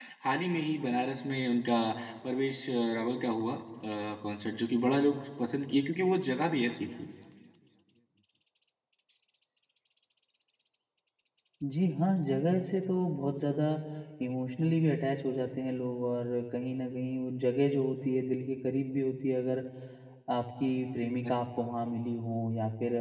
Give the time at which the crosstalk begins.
none

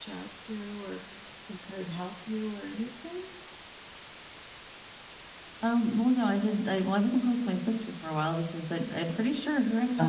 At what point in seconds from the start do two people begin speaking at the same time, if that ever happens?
none

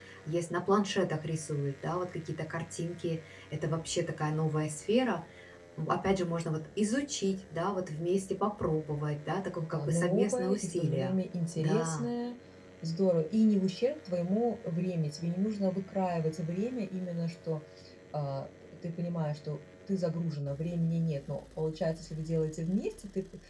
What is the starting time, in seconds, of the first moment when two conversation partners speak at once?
9.6 s

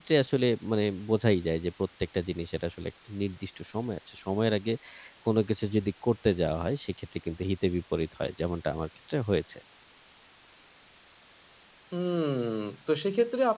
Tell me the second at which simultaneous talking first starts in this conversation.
none

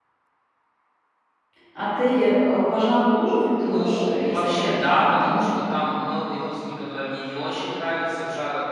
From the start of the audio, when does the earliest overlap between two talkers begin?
3.6 s

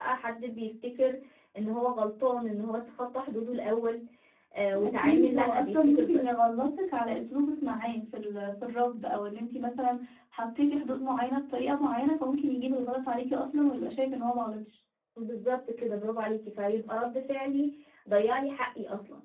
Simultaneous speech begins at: 4.8 s

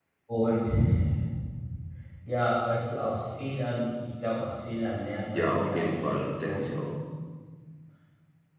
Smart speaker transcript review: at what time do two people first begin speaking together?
5.3 s

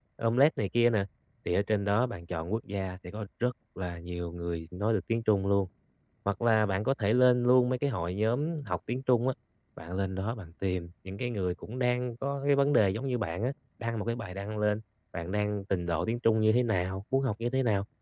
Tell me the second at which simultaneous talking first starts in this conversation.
none

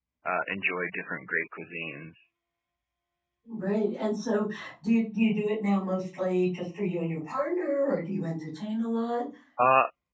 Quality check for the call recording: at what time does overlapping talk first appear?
none

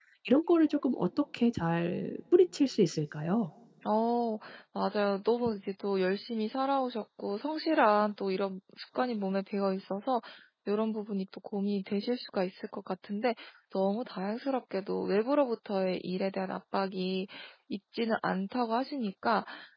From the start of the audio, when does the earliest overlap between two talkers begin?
none

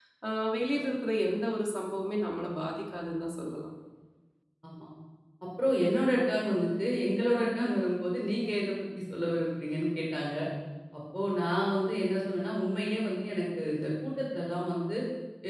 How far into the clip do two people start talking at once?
none

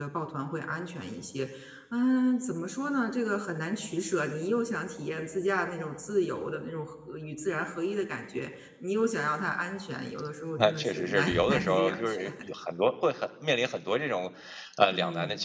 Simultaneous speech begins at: 10.6 s

